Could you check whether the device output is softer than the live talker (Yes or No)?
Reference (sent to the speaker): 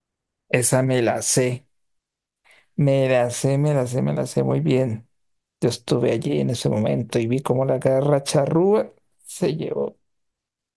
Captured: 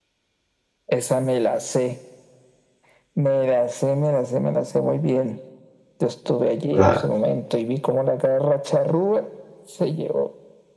Yes